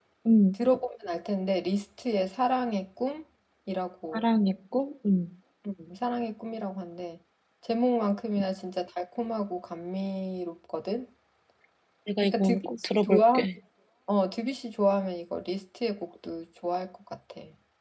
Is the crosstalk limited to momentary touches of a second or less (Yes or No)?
No